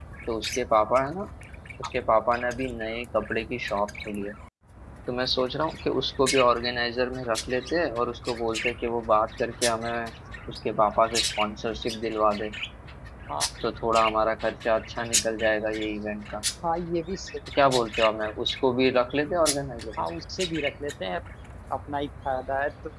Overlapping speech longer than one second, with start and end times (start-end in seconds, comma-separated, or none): none